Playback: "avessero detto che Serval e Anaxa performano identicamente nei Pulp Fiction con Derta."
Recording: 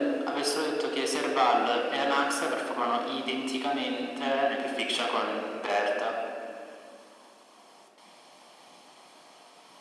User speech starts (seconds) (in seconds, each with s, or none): none